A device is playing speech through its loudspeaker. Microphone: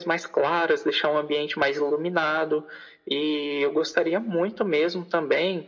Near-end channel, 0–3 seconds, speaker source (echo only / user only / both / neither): echo only